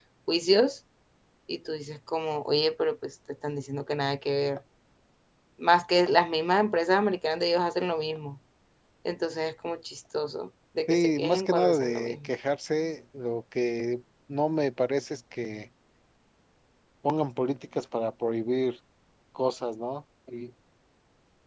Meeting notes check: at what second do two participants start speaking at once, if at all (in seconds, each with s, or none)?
10.9 s